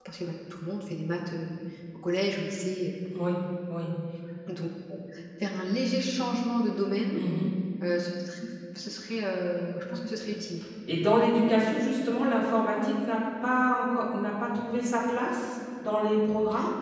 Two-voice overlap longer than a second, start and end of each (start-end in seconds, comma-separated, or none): none